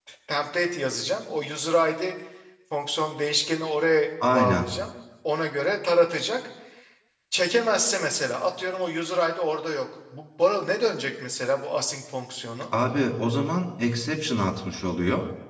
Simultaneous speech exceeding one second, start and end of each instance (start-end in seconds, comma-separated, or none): none